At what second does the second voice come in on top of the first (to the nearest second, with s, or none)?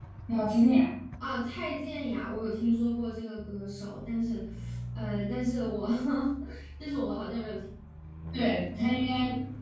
none